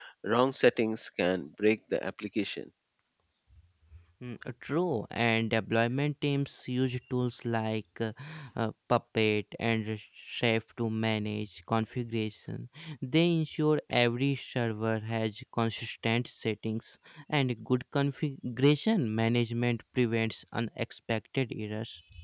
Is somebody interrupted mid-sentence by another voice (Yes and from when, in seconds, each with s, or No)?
No